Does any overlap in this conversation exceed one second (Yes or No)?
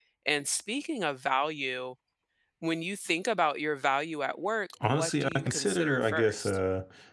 Yes